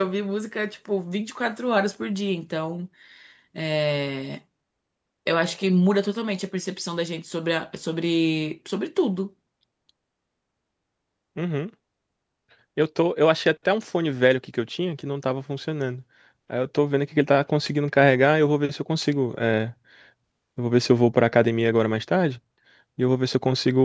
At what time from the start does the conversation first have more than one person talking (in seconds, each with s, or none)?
none